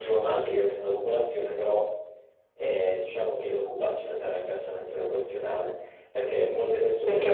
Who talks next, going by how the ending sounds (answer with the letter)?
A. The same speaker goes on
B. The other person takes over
B